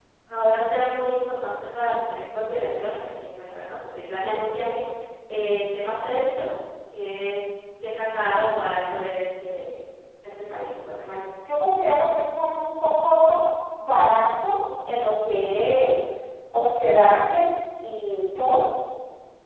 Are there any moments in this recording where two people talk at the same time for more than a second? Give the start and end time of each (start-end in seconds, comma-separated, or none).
none